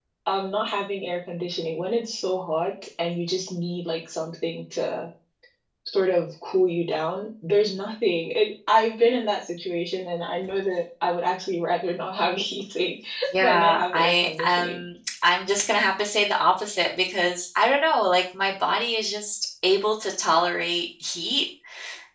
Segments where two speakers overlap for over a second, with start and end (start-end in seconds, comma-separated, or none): 13.4-14.8